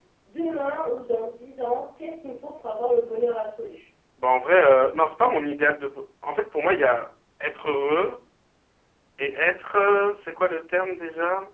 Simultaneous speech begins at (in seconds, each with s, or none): none